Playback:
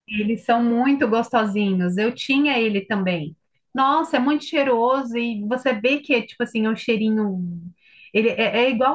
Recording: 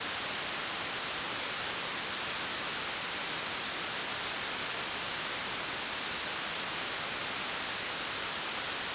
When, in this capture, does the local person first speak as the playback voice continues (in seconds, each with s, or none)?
none